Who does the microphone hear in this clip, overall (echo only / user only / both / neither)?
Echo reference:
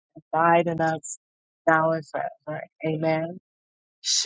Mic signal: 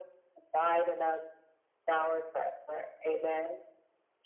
echo only